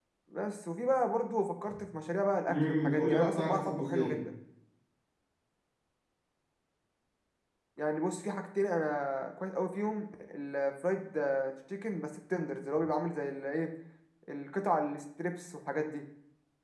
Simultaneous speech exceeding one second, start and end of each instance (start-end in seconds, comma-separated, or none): 2.5-4.2